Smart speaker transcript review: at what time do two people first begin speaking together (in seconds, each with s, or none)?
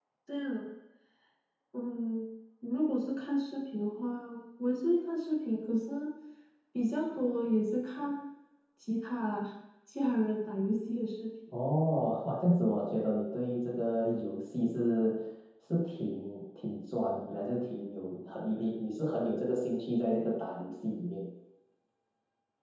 none